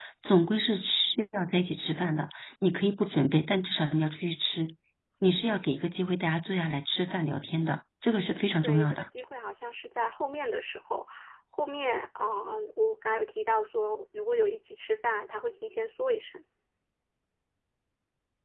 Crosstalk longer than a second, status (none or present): none